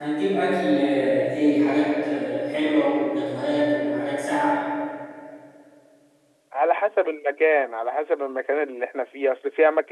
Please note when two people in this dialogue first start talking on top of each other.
none

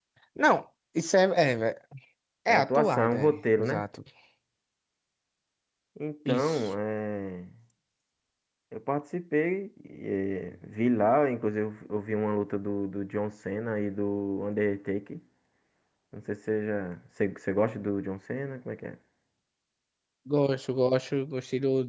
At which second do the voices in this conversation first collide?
2.5 s

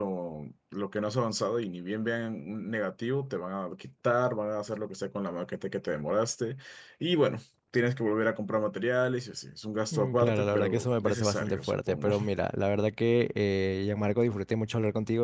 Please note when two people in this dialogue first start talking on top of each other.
9.9 s

